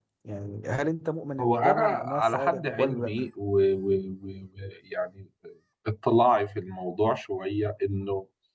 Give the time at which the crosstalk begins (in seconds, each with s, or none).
1.4 s